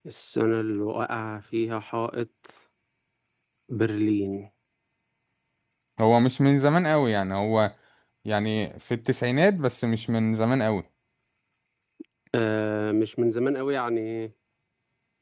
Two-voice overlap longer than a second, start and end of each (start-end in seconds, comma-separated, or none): none